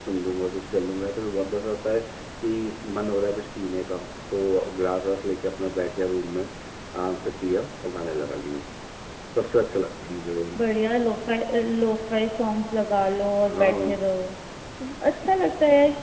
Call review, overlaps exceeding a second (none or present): none